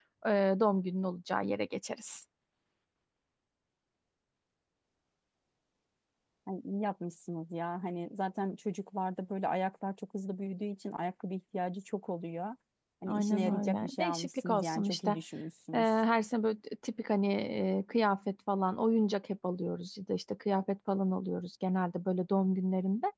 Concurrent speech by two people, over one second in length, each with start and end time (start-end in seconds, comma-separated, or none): 13.1-15.1